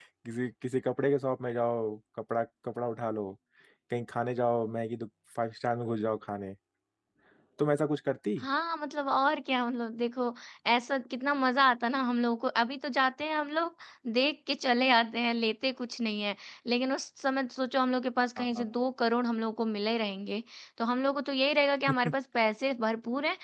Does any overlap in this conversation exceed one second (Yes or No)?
No